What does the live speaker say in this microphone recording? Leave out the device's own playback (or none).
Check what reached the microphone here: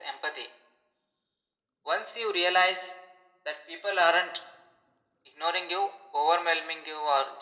none